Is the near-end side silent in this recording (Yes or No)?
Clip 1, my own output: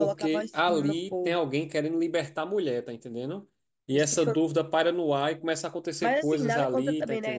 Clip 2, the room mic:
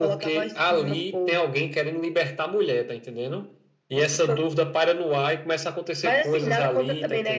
Yes